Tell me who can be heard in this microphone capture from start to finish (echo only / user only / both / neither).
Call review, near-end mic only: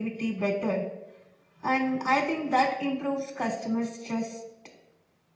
echo only